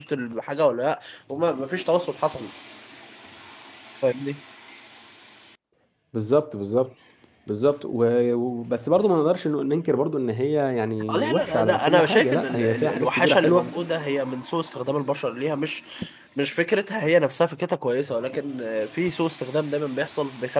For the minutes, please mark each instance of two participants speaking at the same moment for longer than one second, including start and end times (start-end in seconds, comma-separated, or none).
11.1-13.7